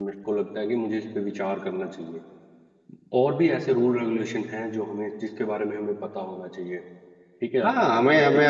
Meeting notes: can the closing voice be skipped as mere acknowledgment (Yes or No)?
No